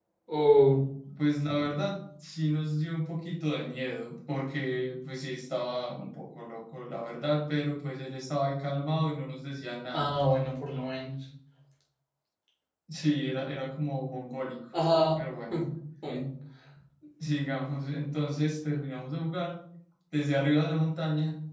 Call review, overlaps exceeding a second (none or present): none